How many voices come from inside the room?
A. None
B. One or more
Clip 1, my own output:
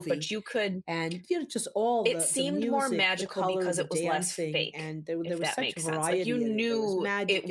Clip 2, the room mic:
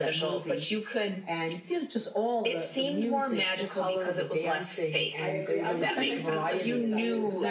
B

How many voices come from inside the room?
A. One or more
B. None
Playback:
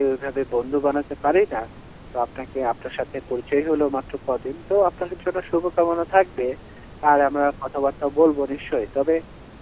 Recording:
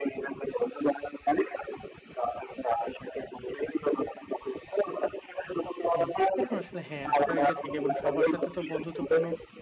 A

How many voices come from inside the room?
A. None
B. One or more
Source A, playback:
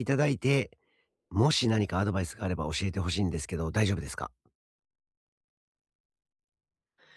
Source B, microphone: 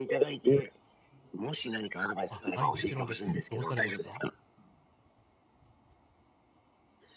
B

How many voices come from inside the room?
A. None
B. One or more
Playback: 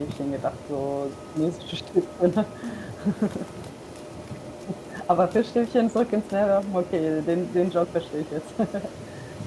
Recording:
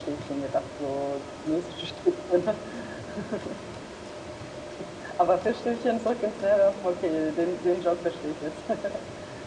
A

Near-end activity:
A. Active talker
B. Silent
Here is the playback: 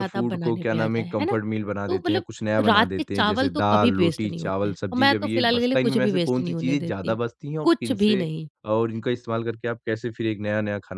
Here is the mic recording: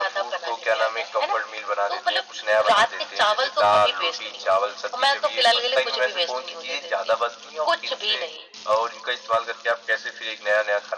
B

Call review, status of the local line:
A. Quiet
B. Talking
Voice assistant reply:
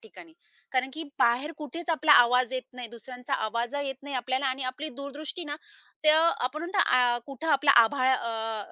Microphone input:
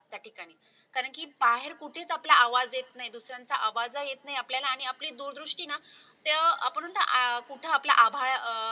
A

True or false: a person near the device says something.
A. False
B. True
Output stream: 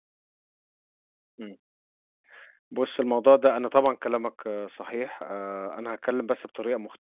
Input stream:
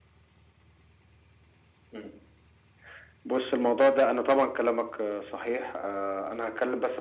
A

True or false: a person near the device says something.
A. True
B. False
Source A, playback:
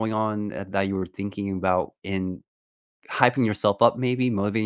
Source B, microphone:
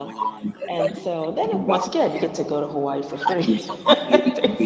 A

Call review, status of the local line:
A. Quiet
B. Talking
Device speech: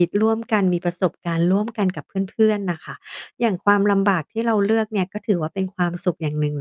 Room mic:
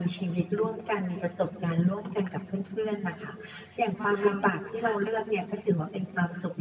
B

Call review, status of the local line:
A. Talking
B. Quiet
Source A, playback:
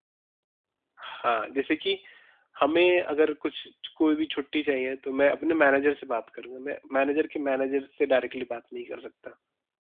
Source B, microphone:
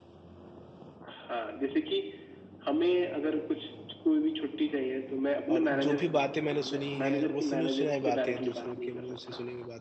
A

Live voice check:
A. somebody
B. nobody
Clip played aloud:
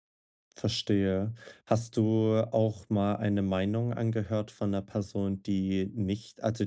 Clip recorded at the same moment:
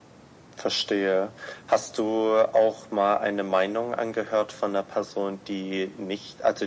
B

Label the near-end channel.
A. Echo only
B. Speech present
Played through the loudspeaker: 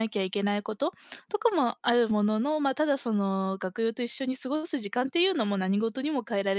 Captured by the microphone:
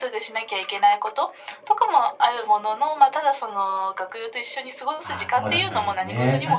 B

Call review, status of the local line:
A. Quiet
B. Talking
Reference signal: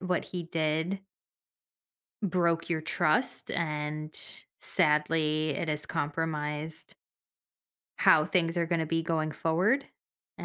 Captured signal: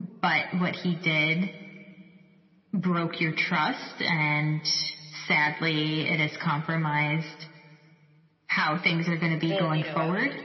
B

